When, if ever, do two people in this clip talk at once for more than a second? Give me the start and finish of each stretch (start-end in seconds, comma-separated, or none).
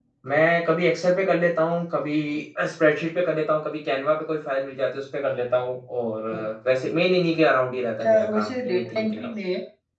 8.0-9.3